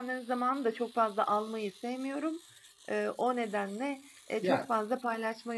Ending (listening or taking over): listening